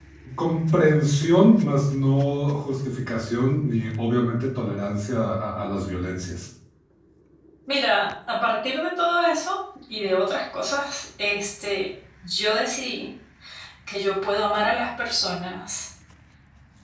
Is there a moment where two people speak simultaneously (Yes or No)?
No